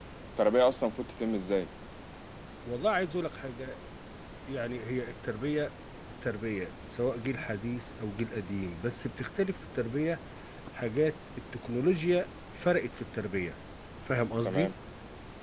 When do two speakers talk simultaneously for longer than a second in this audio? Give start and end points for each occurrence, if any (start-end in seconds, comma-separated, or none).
none